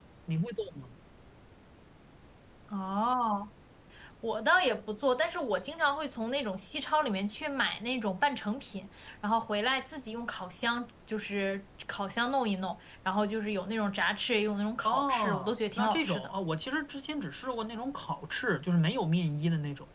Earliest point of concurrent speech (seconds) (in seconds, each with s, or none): 14.8 s